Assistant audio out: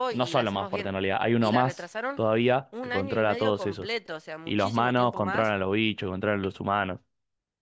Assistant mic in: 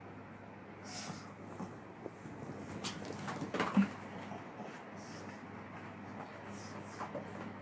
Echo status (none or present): none